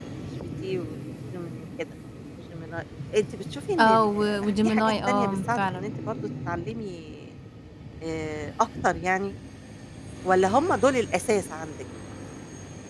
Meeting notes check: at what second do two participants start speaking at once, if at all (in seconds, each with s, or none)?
3.8 s